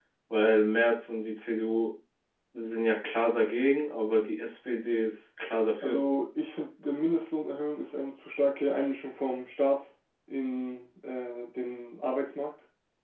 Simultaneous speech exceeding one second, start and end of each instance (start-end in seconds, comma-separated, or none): none